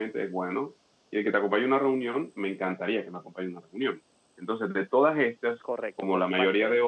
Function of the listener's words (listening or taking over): taking over